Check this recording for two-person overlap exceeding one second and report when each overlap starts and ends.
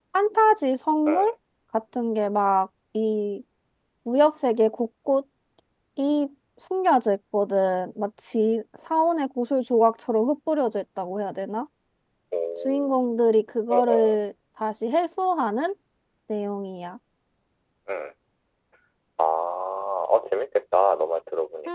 none

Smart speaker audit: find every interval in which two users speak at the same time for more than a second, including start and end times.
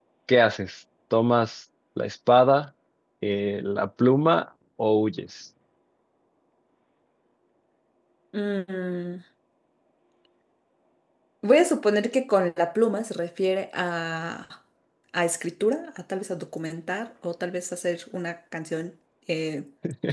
none

